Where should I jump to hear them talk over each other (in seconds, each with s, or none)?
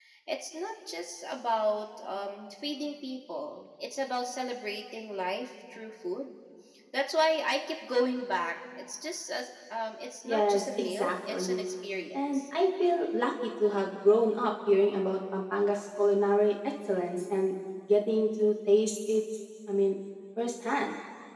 10.2 s